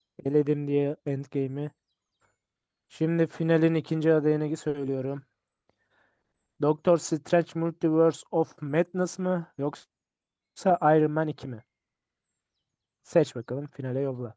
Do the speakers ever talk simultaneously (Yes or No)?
No